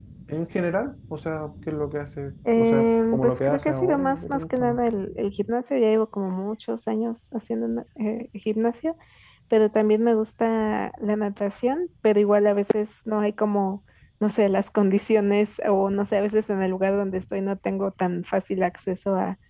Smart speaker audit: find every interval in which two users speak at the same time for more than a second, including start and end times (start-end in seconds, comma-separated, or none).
2.5-4.8